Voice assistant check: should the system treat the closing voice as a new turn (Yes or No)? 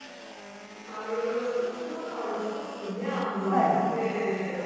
No